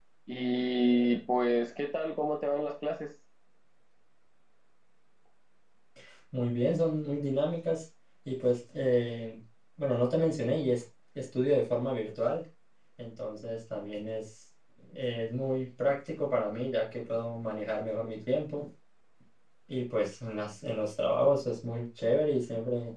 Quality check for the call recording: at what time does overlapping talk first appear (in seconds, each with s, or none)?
none